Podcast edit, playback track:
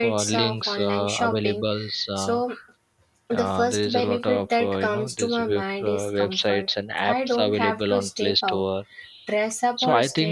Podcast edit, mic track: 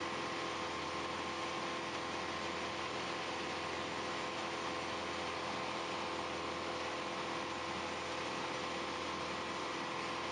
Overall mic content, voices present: neither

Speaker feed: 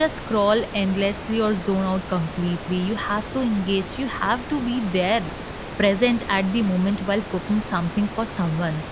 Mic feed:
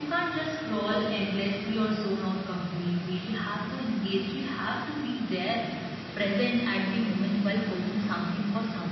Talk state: echo only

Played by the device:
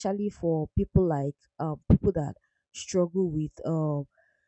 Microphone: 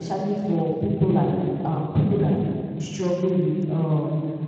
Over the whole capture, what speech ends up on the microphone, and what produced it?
echo only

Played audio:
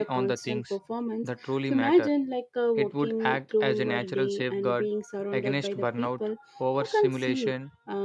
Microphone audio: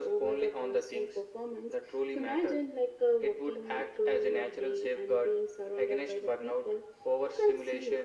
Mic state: echo only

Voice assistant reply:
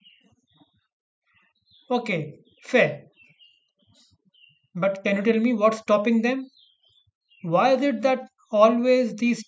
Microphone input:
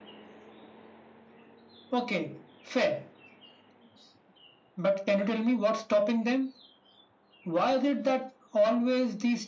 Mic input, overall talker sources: echo only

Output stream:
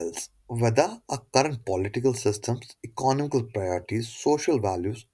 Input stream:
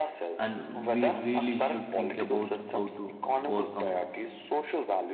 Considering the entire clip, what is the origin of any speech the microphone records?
both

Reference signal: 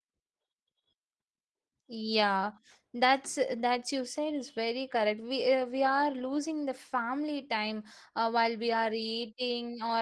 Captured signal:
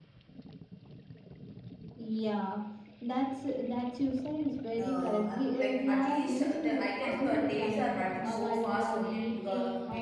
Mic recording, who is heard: both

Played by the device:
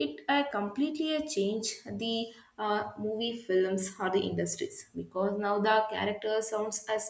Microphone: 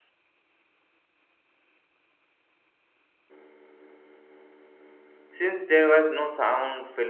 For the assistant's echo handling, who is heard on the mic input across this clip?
user only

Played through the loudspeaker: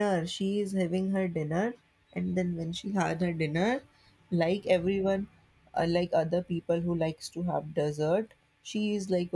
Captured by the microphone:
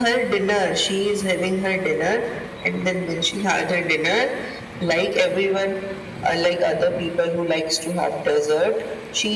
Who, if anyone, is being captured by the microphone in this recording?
echo only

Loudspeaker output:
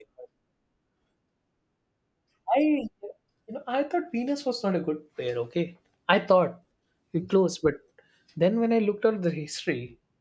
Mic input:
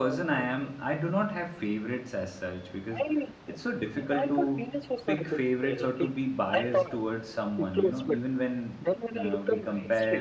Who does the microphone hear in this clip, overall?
both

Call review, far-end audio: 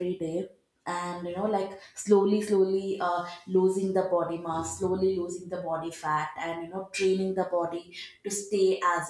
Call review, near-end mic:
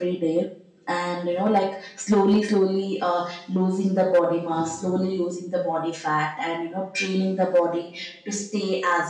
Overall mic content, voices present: echo only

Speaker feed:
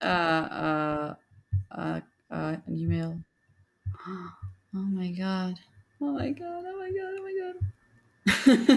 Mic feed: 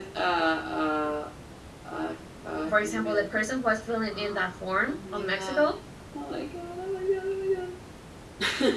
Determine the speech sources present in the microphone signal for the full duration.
both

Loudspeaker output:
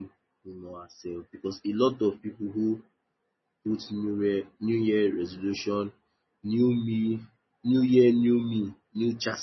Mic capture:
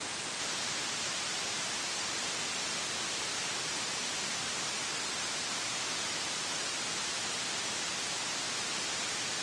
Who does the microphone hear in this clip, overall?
neither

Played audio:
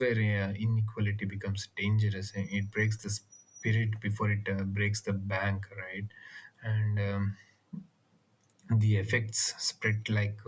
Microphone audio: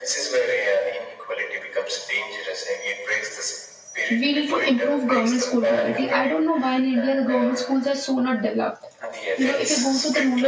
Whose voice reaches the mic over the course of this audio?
both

